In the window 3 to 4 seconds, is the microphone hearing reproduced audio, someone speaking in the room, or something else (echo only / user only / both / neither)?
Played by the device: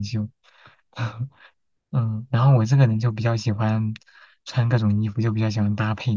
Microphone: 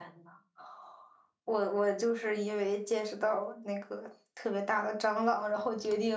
user only